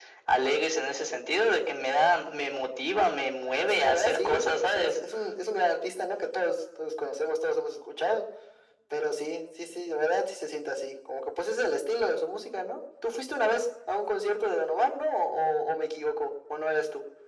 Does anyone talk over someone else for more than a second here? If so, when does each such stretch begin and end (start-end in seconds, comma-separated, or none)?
3.6-4.9